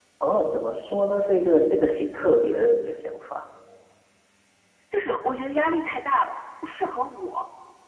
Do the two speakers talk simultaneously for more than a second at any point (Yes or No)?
No